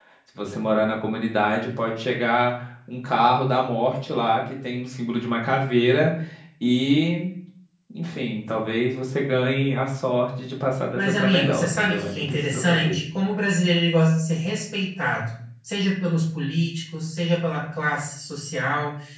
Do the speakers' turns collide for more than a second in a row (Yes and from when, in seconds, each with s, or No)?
Yes, from 10.9 s